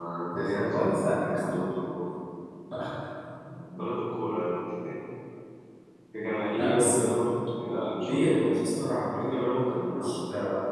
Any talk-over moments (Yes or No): Yes